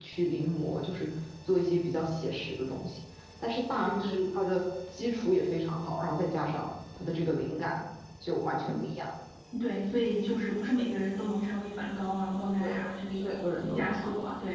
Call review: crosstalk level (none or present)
present